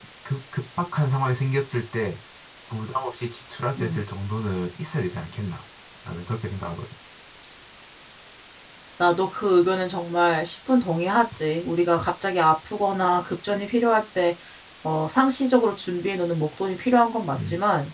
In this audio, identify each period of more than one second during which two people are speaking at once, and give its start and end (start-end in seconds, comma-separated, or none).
none